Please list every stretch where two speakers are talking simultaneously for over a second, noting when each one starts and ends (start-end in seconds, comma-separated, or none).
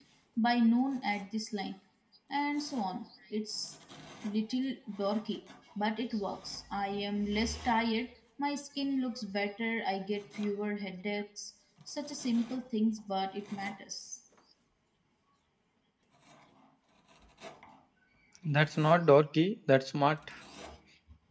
none